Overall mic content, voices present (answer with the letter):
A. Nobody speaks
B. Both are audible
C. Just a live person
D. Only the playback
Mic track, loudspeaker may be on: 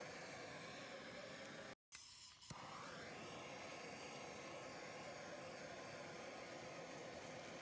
A